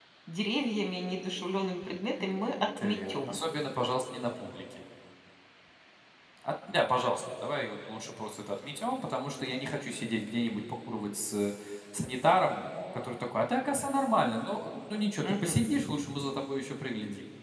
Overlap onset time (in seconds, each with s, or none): 2.1 s